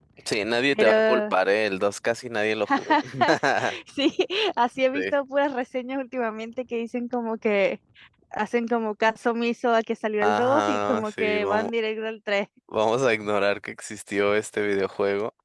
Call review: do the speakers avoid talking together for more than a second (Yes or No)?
No